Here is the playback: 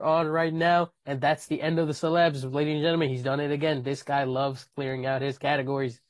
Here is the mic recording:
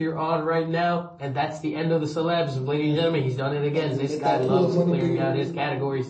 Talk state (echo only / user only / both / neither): both